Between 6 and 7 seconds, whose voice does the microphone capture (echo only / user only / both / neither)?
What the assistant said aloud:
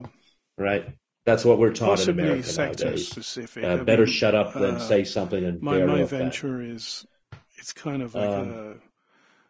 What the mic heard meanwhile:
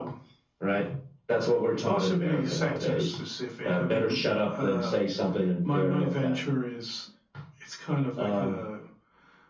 echo only